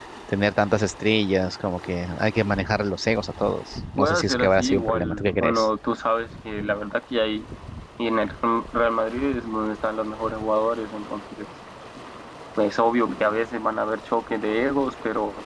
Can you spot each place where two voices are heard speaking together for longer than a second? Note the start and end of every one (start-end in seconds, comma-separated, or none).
4.0-5.7